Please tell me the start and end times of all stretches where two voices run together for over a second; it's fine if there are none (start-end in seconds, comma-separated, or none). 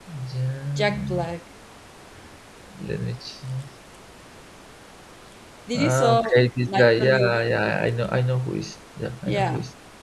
5.7-7.2